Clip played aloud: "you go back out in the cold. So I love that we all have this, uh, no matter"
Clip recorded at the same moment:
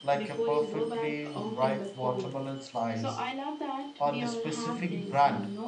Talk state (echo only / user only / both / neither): both